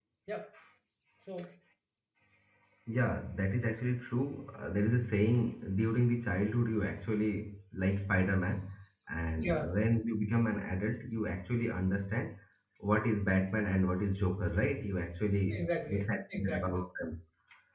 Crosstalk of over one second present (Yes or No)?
Yes